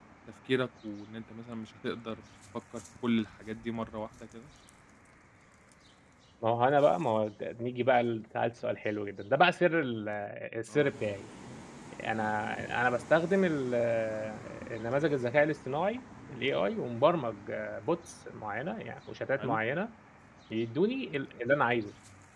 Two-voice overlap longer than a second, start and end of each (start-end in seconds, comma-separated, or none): none